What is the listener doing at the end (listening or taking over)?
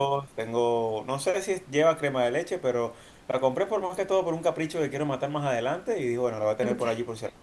listening